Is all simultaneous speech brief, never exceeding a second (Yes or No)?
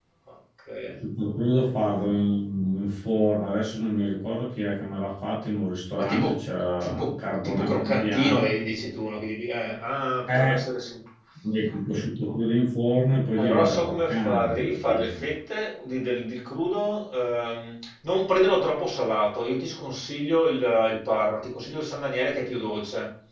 No